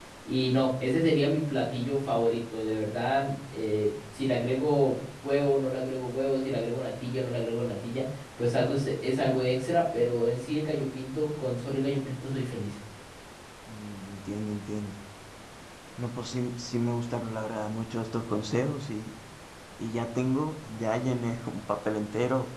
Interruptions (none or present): none